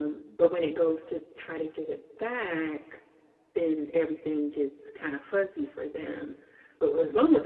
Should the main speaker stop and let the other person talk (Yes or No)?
No